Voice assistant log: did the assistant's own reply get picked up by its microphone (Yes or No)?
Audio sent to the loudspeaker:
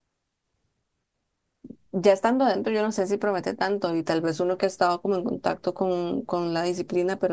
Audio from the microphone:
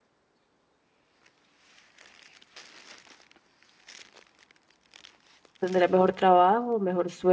No